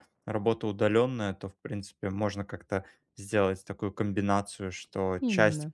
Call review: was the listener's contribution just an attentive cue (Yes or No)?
Yes